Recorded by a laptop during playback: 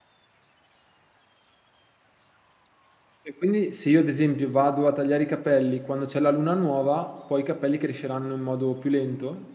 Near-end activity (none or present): present